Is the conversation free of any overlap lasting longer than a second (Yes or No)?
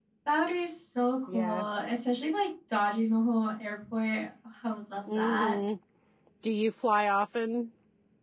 Yes